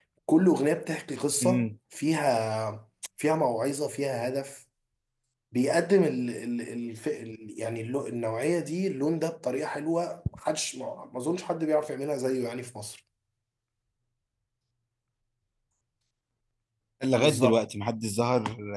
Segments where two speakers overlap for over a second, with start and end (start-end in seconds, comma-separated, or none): none